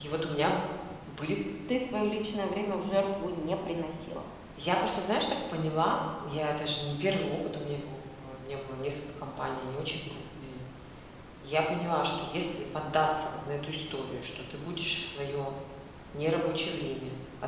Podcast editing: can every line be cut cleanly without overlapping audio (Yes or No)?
Yes